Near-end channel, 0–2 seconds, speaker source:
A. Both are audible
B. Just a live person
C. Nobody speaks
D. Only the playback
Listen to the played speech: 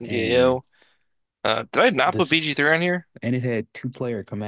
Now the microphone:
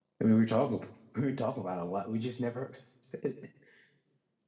B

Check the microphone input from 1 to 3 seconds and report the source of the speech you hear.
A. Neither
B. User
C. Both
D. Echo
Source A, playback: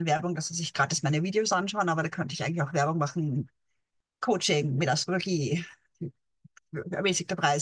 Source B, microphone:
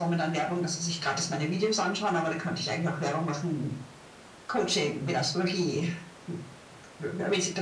D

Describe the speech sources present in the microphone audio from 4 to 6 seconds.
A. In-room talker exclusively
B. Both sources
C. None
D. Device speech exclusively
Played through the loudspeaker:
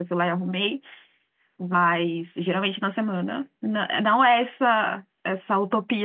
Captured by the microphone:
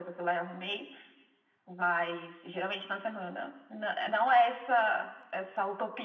D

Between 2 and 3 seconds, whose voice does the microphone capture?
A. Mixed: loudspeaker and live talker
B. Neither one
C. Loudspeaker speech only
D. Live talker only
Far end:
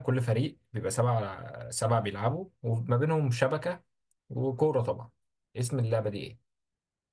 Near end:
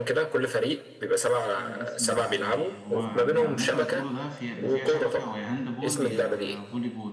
A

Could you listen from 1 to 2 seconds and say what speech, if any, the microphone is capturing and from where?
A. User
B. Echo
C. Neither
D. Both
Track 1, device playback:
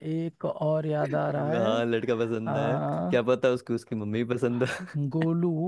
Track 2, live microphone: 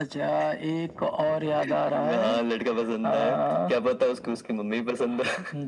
B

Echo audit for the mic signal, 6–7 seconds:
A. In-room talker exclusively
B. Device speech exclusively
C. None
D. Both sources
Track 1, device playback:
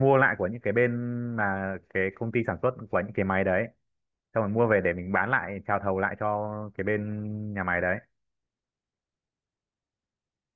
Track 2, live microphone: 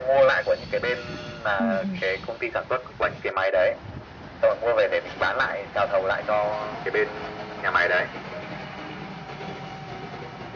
B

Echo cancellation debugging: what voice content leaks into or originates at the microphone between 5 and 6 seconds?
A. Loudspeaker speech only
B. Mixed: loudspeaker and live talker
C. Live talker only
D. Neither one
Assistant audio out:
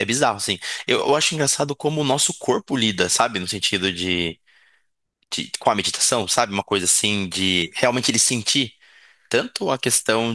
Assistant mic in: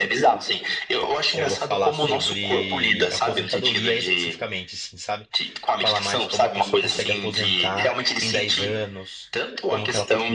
B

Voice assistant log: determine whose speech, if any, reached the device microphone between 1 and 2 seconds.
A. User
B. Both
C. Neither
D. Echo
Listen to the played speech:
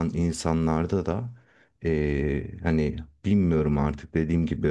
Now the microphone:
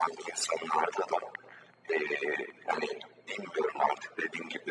D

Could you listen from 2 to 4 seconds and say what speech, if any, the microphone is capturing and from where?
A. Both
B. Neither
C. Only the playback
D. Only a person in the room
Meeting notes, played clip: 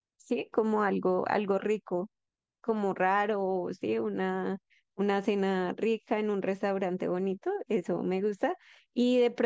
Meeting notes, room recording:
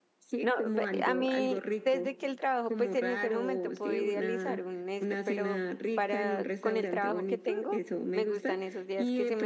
A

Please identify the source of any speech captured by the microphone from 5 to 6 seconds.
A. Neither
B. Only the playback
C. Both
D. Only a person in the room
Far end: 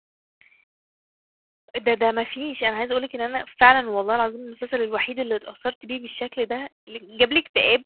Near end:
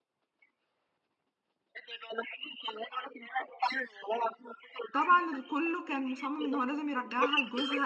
C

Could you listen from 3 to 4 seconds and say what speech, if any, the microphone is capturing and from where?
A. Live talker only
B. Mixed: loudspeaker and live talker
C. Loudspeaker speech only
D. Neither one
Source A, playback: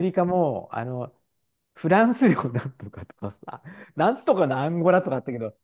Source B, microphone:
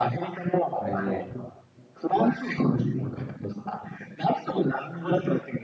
C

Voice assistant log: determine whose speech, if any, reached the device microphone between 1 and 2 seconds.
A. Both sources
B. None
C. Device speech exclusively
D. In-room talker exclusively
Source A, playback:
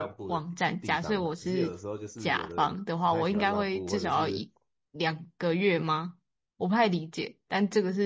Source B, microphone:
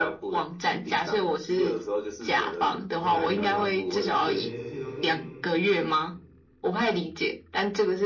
C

